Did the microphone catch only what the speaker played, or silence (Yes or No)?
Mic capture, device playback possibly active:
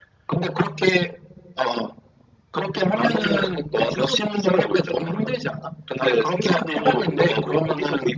Yes